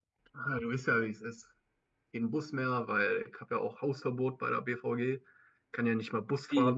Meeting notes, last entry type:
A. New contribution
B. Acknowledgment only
A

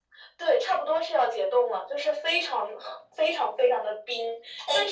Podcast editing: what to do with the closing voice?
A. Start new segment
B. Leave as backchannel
B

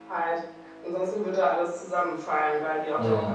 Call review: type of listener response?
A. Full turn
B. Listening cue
B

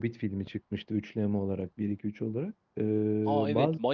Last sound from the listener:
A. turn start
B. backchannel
A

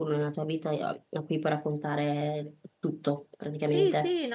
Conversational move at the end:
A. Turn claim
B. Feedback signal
A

